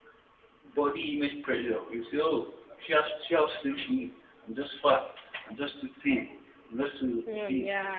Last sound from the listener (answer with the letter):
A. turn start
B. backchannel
B